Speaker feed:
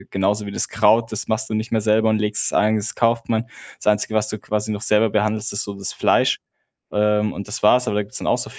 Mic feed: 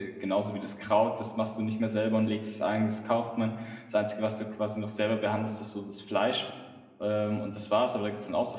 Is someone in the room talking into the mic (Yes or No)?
No